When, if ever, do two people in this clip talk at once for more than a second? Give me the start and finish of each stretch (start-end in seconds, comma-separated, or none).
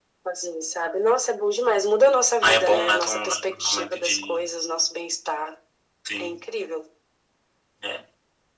2.4-4.4